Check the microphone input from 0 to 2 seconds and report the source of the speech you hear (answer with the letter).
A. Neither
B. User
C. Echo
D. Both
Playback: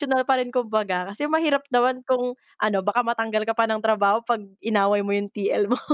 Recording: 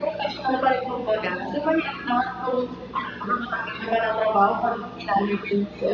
C